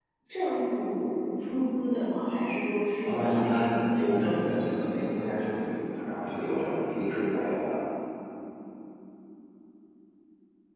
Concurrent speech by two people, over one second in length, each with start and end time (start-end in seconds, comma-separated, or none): 3.1-4.8